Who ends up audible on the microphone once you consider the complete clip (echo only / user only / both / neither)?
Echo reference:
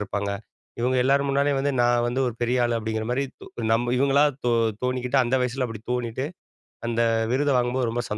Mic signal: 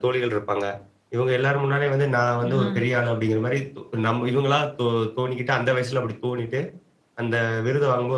both